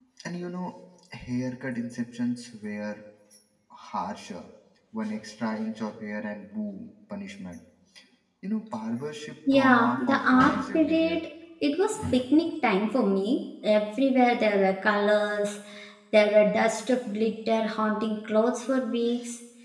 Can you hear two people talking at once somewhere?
Yes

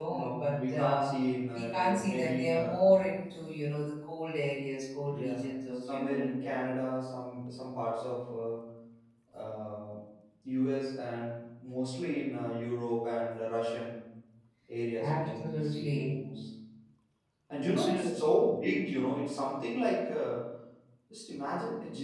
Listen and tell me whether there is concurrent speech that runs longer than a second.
Yes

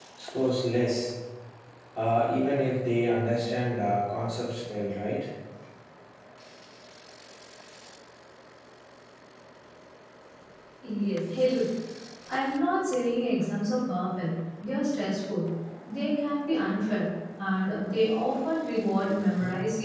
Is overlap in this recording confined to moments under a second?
Yes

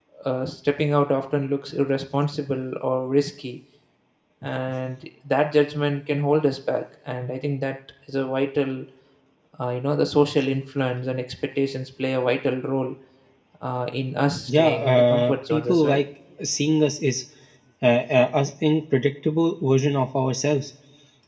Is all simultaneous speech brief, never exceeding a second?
No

